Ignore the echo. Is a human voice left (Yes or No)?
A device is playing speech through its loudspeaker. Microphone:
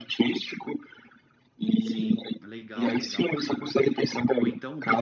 Yes